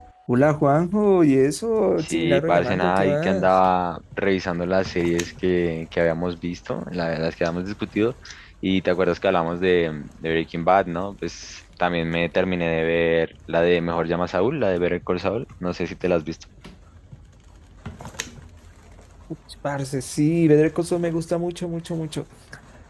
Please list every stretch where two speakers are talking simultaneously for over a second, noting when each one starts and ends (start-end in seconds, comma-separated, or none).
2.0-3.5